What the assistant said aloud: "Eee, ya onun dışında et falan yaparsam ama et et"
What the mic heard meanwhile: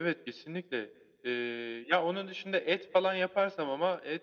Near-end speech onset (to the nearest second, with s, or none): none